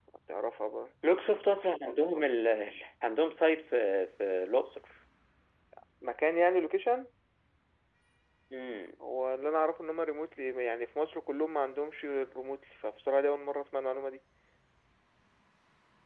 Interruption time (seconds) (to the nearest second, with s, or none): none